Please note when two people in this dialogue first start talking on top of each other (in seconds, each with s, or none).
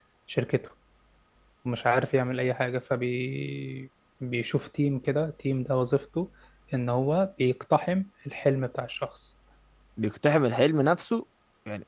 none